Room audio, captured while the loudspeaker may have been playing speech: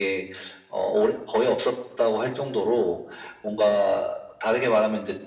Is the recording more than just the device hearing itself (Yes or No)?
No